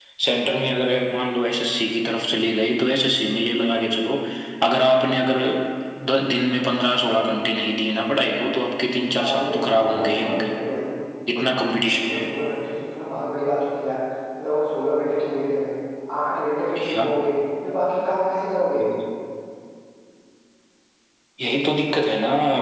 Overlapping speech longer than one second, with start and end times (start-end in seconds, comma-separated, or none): 9.2-10.5